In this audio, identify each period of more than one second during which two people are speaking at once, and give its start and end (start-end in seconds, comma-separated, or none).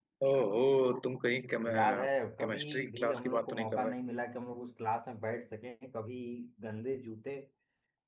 2.4-3.9